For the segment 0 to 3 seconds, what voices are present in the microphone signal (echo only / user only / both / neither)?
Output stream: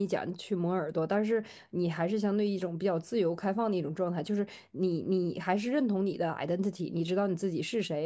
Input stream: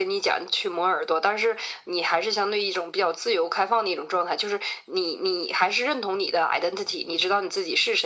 echo only